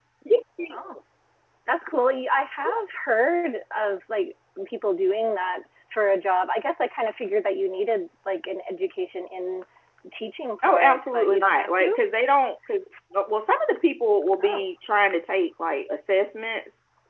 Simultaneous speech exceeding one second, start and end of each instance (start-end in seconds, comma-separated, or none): 10.7-12.0